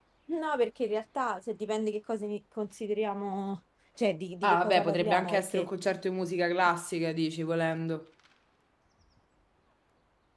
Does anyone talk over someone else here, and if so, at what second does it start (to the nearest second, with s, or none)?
4 s